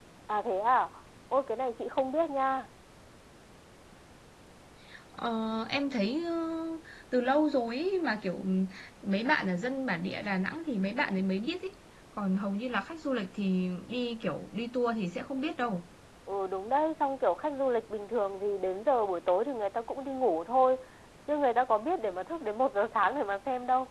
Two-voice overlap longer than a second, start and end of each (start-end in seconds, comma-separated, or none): none